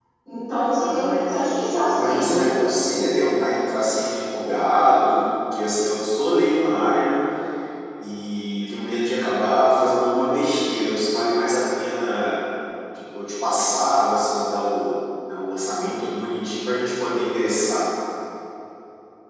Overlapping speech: Yes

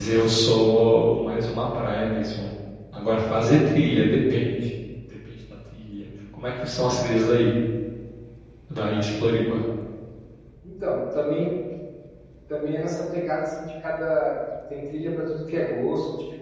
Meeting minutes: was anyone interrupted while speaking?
No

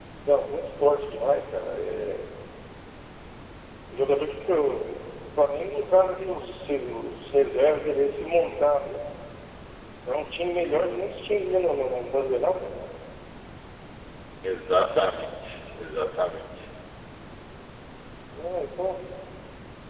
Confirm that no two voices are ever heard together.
Yes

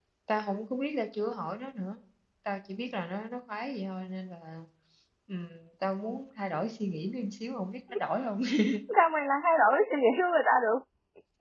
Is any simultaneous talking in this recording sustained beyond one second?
No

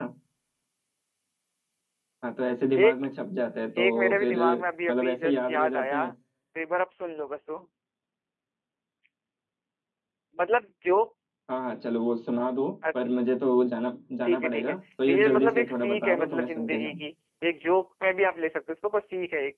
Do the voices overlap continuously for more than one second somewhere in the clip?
Yes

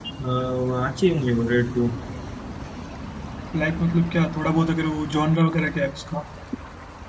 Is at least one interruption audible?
No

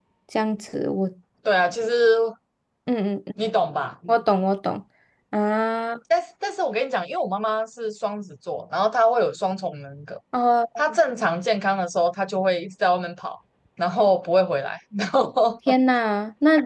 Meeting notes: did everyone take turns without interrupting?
Yes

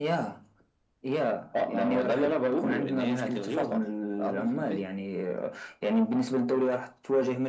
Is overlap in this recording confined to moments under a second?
No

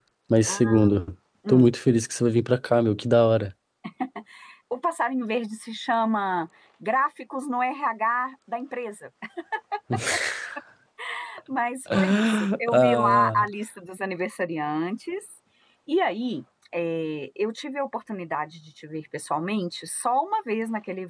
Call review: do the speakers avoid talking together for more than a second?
No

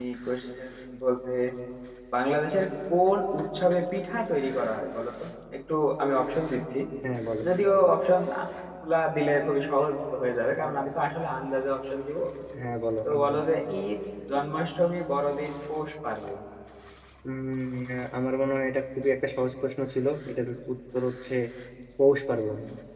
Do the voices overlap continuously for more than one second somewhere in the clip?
No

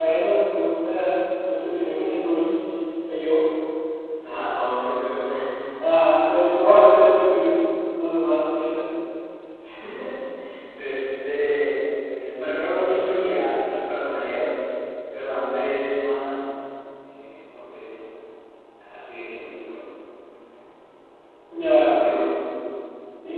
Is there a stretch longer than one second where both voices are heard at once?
No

